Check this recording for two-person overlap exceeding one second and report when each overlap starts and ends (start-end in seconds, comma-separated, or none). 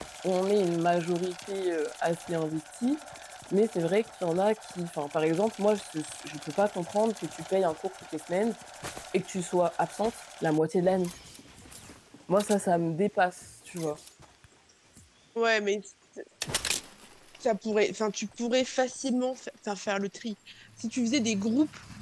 none